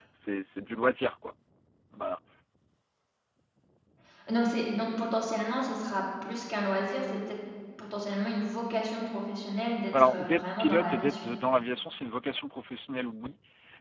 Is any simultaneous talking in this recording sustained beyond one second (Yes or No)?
Yes